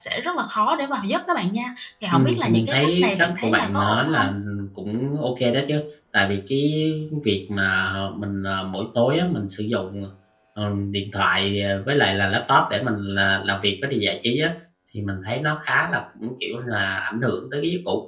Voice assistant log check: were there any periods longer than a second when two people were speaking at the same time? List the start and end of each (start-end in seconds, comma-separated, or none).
2.1-4.3